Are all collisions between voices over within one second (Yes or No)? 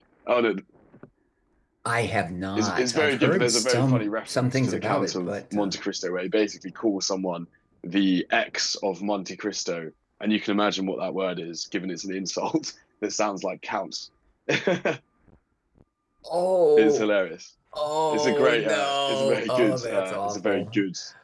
No